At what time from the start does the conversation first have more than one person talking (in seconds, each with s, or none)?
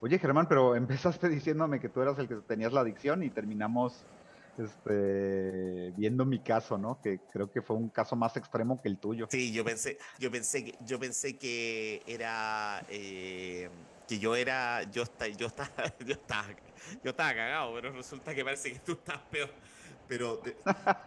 none